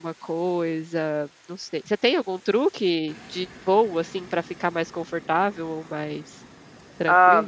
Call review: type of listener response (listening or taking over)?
taking over